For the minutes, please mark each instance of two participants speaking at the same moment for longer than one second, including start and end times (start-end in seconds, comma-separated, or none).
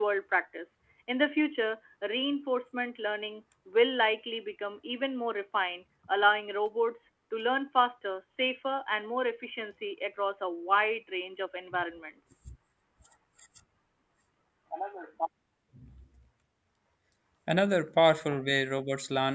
none